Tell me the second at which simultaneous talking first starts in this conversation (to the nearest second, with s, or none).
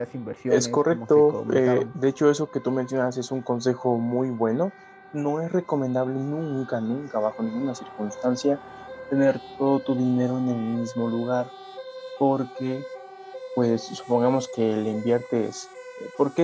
1 s